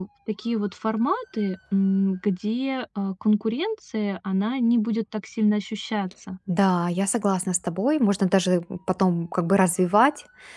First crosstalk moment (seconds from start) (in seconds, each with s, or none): none